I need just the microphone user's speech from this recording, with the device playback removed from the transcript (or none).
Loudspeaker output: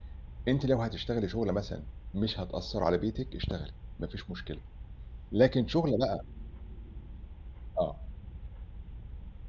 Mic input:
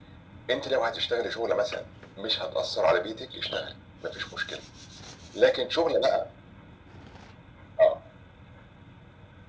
none